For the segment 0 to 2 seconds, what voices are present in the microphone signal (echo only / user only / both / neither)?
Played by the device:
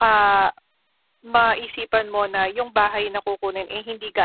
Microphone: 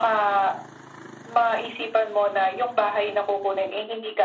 echo only